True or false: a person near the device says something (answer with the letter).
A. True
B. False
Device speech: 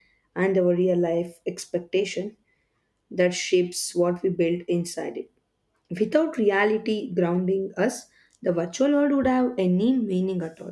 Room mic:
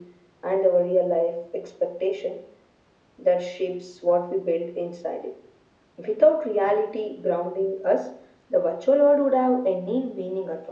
B